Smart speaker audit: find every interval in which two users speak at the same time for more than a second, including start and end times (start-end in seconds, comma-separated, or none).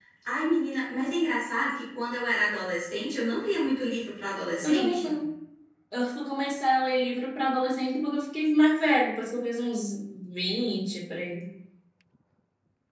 none